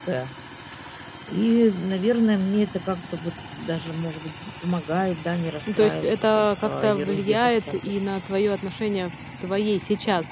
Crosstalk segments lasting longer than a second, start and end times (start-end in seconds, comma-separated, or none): 5.7-7.7